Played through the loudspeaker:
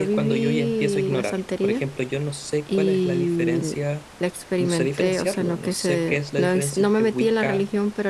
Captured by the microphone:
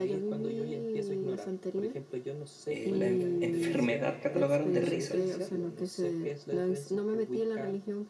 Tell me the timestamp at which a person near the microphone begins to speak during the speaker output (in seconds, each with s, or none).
2.6 s